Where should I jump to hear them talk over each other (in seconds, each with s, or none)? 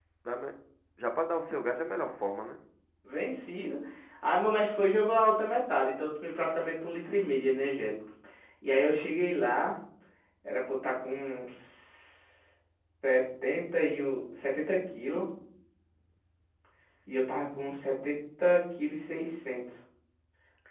none